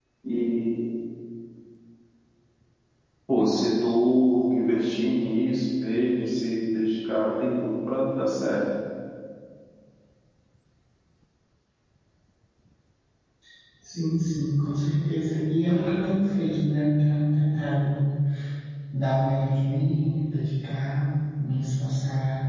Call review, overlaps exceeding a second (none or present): none